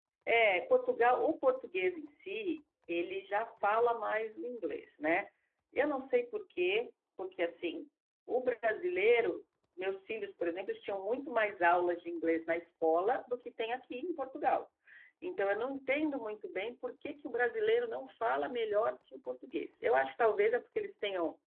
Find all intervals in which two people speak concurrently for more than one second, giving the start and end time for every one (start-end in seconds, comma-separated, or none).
none